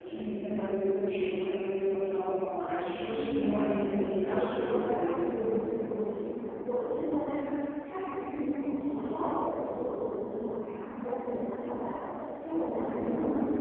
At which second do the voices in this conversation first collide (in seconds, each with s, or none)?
3.0 s